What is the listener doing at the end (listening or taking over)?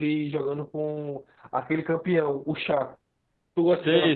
taking over